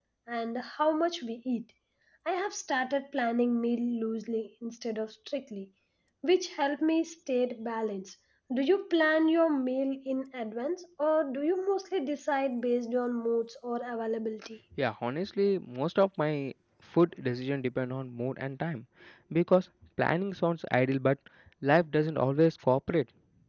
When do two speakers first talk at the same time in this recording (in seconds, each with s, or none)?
none